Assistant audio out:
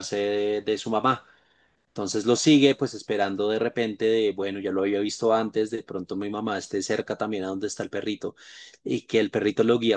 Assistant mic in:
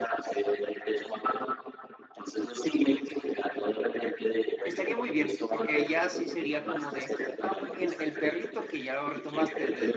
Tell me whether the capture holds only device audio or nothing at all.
No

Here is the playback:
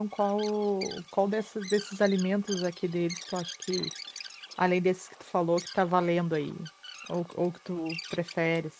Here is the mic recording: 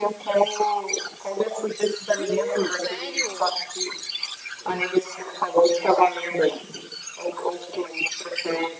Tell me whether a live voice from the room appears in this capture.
Yes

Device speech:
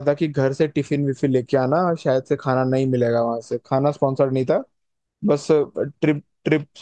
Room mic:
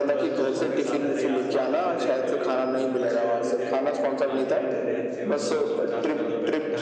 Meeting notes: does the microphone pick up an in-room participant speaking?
Yes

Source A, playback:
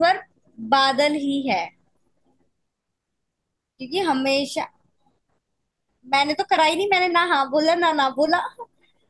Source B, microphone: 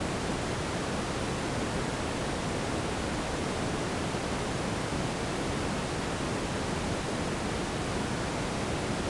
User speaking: No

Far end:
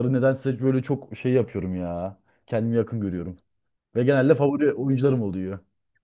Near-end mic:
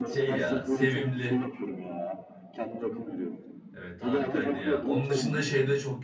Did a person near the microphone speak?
Yes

